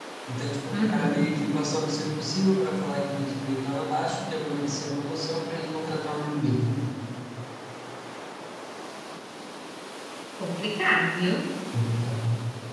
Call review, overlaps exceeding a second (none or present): none